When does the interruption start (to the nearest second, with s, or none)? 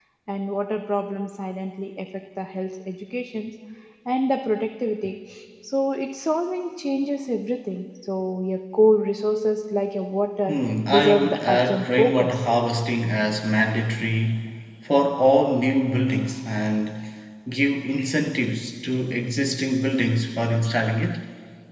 11 s